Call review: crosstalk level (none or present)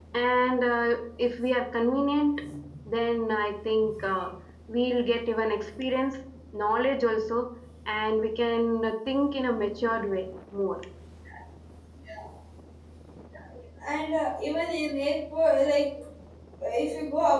none